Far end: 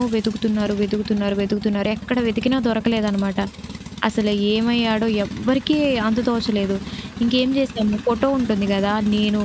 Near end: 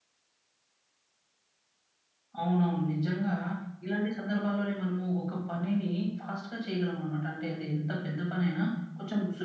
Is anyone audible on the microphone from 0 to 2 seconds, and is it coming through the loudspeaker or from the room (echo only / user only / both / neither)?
neither